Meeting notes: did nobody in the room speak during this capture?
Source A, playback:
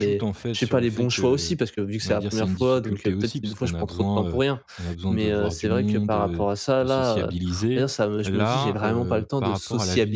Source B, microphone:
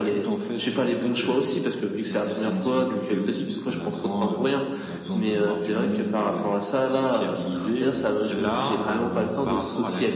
No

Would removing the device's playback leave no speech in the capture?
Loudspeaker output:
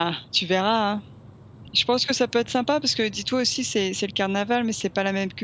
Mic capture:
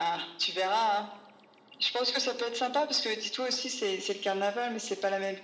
Yes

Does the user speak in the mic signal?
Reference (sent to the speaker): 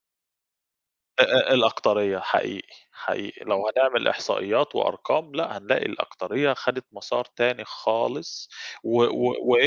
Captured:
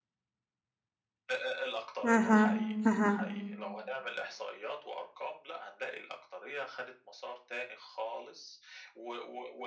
Yes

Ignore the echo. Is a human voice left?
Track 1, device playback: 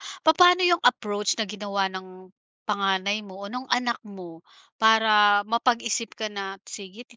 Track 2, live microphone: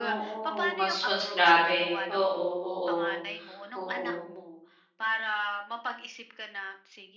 Yes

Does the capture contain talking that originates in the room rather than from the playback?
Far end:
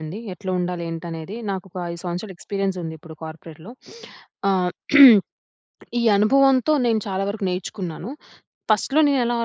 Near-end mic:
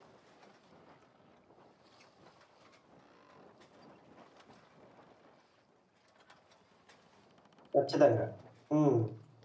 Yes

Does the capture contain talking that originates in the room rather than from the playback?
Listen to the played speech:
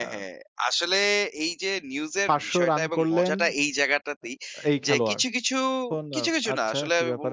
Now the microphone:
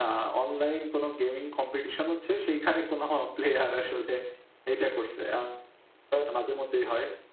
Yes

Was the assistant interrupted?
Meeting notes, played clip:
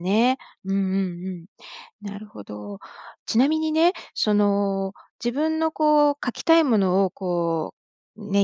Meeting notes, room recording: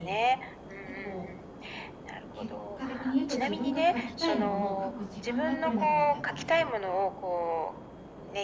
Yes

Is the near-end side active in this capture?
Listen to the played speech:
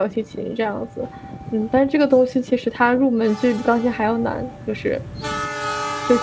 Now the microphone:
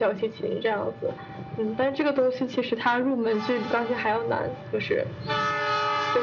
No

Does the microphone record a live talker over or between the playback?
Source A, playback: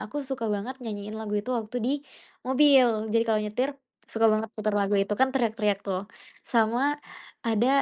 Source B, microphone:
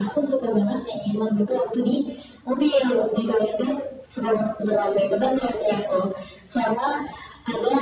No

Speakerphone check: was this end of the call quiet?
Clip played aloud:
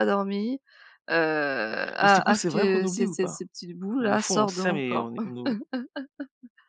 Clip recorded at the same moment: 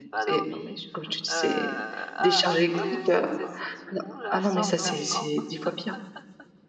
No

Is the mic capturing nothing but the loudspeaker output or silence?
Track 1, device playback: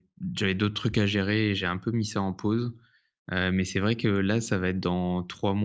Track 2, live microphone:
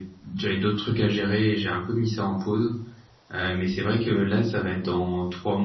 Yes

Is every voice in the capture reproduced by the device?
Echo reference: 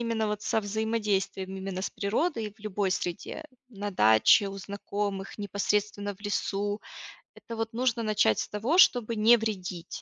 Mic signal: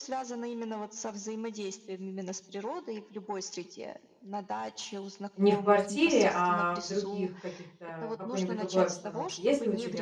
No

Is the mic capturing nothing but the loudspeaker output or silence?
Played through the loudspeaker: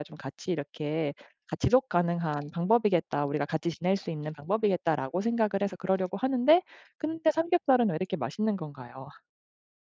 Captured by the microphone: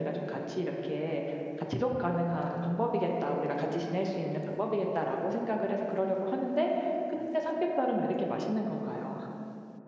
Yes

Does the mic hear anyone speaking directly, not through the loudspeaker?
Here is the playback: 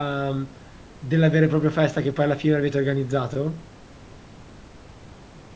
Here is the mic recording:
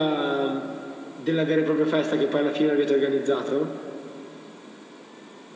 No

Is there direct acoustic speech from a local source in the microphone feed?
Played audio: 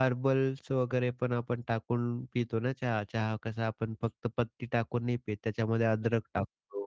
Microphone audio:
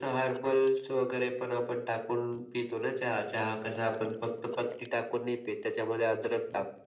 No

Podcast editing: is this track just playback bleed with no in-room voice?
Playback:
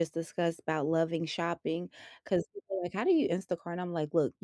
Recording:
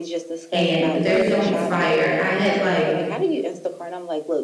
No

